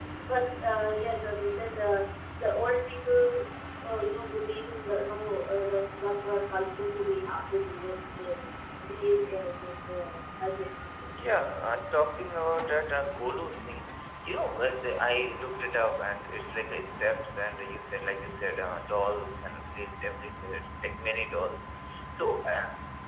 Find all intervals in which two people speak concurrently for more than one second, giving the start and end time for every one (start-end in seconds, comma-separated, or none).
none